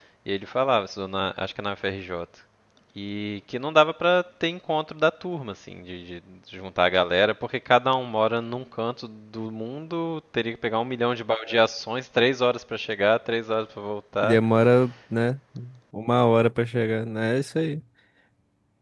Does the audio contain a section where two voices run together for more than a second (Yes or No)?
No